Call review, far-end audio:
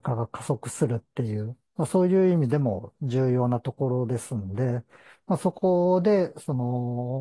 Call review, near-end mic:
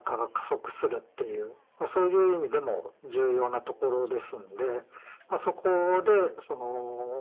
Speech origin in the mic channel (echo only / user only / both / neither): echo only